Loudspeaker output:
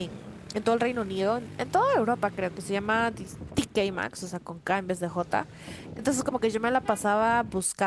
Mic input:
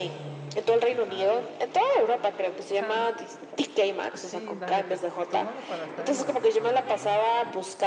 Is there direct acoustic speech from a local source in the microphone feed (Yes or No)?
Yes